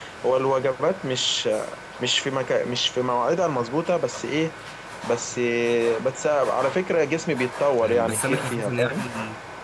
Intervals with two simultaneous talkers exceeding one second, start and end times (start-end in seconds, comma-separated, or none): 7.8-9.1